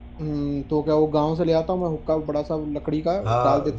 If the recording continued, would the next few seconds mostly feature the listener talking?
Yes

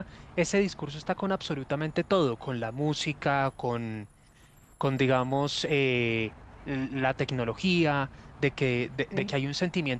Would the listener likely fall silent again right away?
Yes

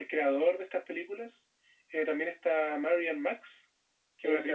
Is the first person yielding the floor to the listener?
Yes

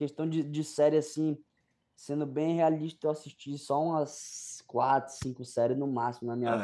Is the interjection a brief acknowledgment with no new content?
Yes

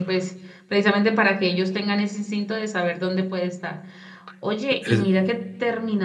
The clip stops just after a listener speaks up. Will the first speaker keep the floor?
Yes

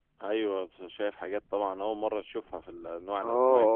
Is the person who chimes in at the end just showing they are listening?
No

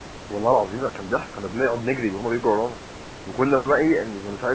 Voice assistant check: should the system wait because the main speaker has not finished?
Yes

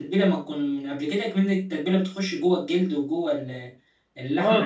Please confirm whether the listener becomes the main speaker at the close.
Yes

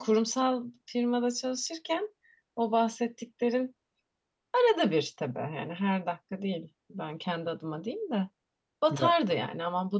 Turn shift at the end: No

